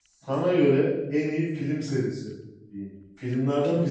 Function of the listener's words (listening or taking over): taking over